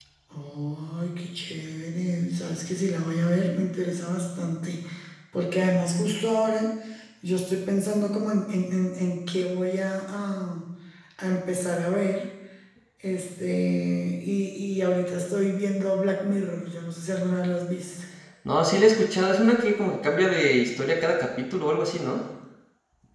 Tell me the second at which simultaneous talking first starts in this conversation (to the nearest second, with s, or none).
none